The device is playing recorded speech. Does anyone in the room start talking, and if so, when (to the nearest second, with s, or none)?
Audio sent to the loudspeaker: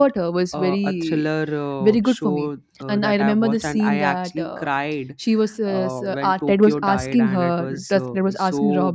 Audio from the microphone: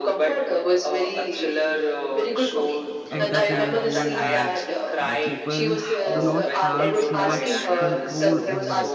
3 s